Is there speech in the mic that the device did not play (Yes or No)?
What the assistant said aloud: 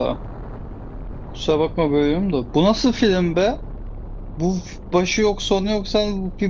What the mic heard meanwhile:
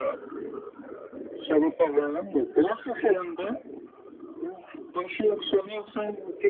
No